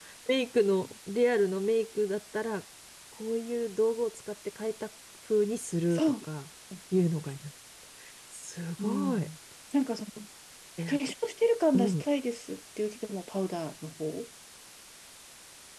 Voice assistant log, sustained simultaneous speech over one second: none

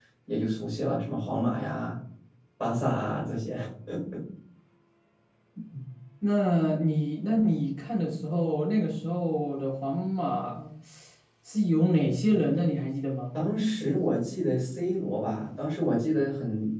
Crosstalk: none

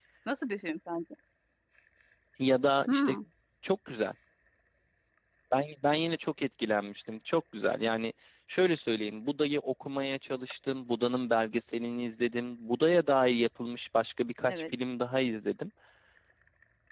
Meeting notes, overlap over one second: none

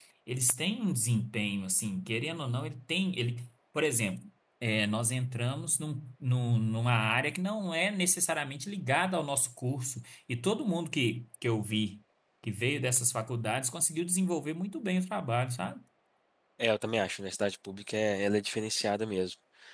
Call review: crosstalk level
none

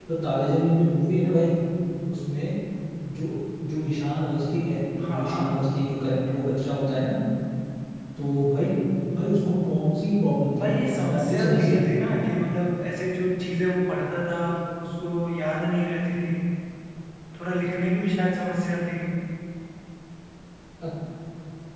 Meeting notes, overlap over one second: present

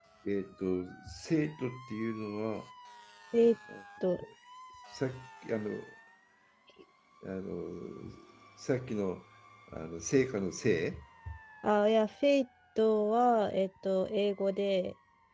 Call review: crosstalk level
none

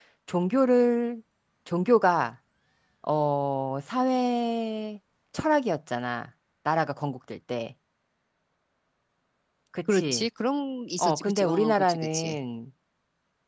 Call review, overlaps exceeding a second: present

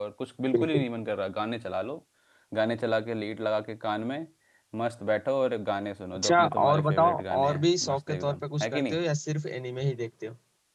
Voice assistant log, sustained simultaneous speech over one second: present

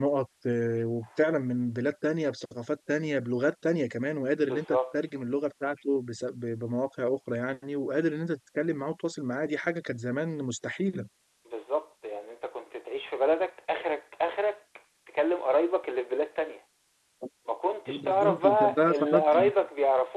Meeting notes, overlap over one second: present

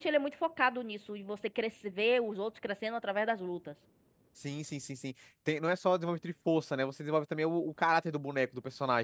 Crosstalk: none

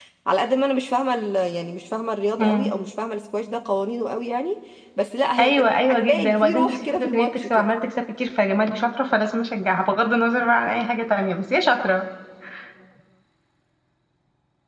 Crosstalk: present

